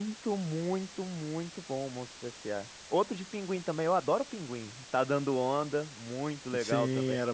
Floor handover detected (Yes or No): Yes